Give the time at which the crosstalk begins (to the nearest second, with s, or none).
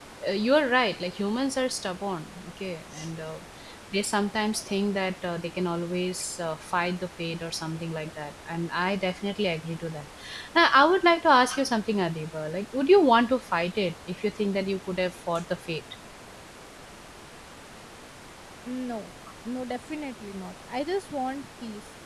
none